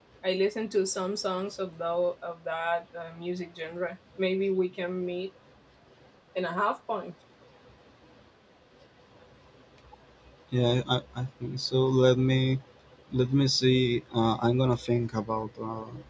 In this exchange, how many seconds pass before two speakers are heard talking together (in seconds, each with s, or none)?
none